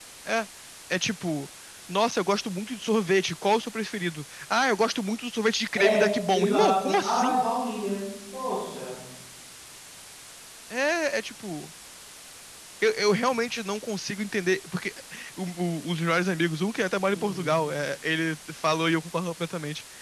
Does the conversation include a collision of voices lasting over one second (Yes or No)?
Yes